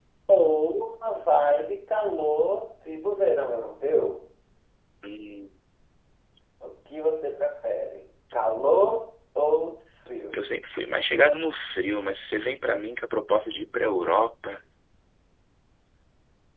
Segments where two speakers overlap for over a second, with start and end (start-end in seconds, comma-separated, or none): none